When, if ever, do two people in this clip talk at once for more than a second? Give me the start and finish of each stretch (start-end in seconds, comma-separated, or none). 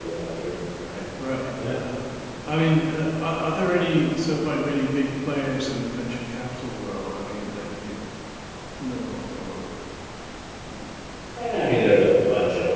none